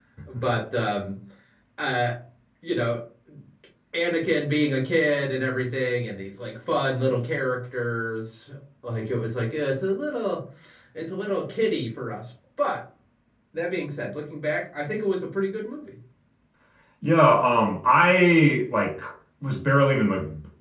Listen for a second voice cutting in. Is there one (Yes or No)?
No